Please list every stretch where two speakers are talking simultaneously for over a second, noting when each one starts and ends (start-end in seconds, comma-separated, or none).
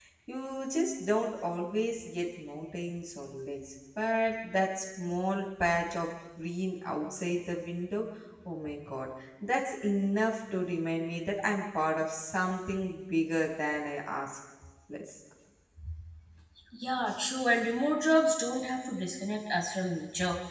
none